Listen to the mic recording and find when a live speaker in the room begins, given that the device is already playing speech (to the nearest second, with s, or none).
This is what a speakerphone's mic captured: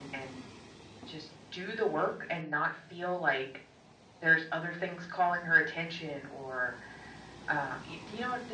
none